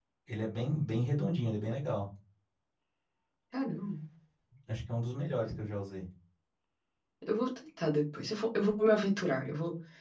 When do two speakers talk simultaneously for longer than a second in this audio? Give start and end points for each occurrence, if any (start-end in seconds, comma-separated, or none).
none